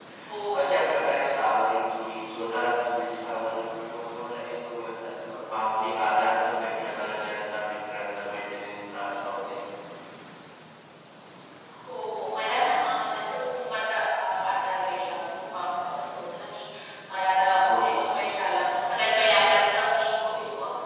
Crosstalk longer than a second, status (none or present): none